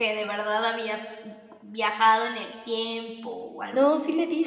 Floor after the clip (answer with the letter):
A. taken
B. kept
A